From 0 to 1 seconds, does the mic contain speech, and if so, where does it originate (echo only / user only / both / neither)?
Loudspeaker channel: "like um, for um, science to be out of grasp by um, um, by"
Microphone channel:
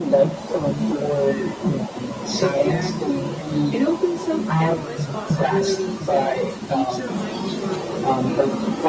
echo only